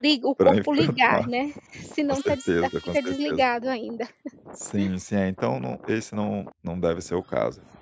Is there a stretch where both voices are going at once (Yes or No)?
Yes